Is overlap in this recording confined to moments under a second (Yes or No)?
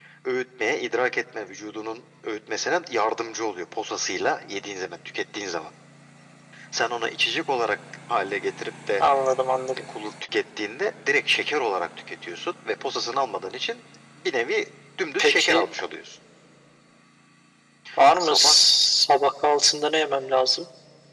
Yes